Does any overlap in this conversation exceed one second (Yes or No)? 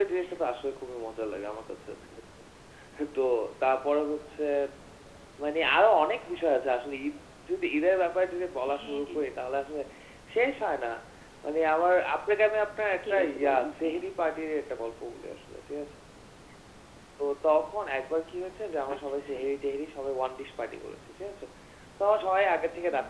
Yes